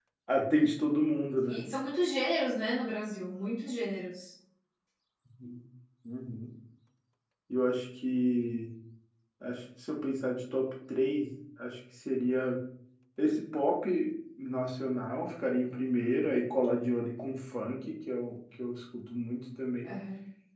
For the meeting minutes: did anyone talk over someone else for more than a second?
No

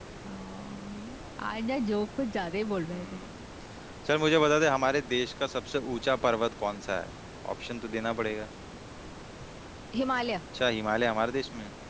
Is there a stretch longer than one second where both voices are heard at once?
No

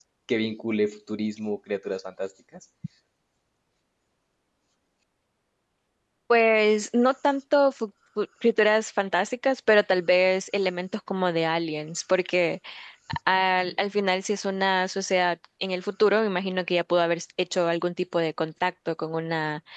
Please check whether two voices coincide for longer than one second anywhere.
No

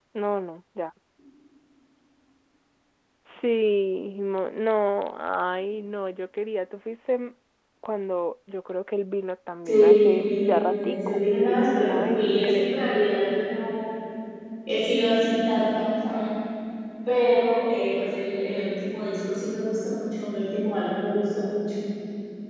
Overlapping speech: Yes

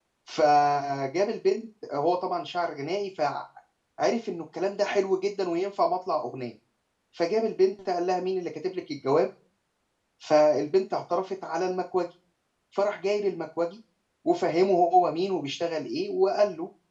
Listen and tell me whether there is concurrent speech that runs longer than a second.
No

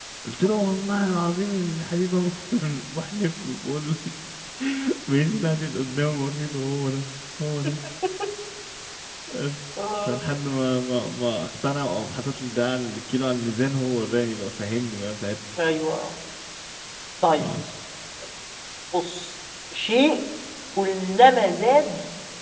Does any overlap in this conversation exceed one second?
No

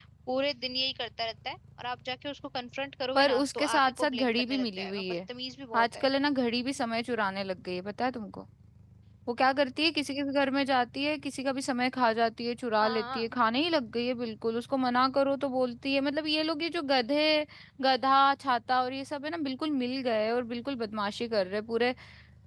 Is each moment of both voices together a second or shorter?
No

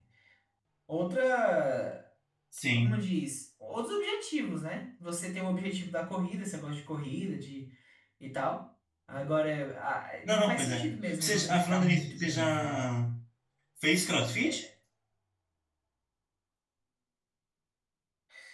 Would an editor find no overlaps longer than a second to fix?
No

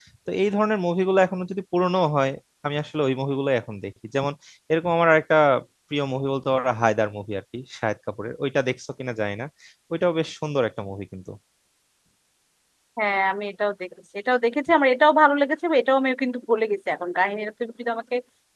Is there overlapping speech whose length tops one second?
No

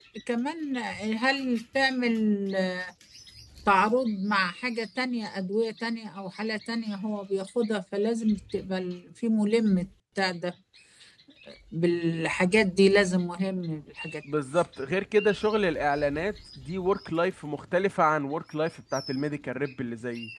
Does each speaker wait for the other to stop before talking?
Yes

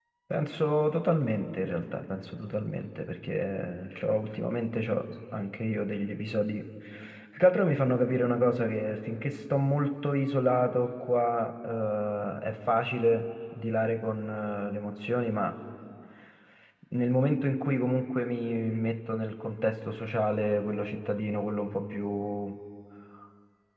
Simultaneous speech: No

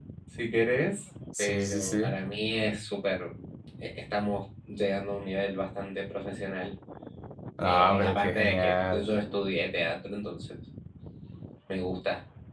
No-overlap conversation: No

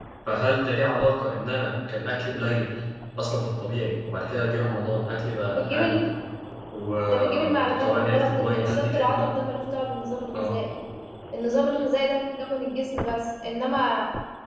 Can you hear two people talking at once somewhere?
Yes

